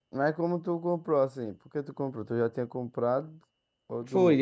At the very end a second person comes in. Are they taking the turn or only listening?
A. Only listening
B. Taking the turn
B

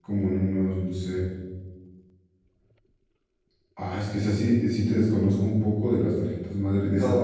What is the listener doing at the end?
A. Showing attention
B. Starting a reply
B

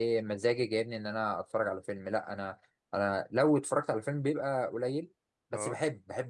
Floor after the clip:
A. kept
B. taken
A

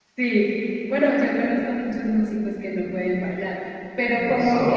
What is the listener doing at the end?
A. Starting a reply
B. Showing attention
B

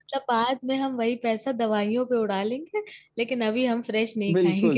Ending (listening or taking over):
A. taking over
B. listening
A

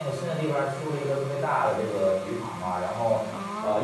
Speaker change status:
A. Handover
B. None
B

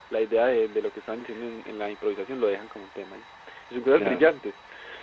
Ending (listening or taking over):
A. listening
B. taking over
A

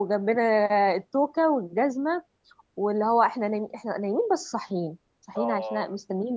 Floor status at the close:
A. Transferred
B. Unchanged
B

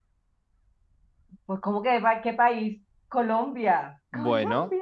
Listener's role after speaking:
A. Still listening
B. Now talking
B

